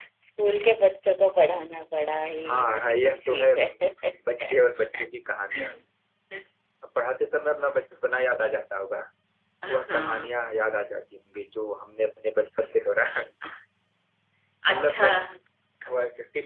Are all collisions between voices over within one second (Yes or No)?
No